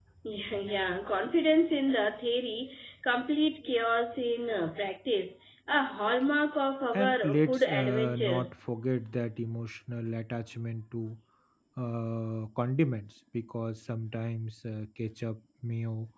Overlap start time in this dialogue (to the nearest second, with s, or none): 7 s